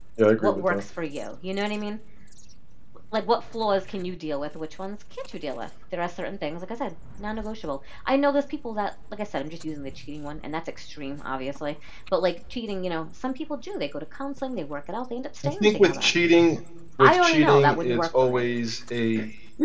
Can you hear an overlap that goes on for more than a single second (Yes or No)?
Yes